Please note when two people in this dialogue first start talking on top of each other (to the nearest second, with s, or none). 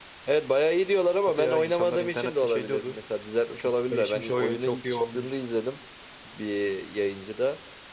1 s